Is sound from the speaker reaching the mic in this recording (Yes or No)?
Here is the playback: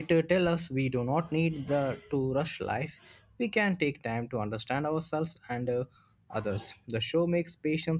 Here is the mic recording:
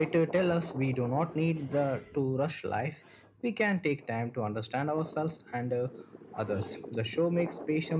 Yes